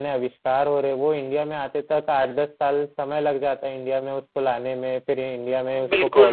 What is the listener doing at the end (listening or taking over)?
taking over